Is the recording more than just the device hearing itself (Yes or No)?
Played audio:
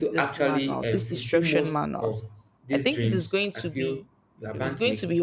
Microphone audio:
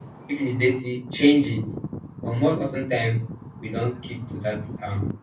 Yes